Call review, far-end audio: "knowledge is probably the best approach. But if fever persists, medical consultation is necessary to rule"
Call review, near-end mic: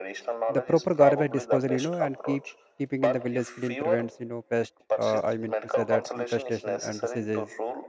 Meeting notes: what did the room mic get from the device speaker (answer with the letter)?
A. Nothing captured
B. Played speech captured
B